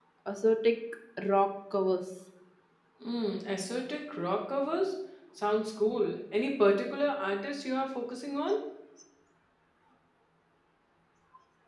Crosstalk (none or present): none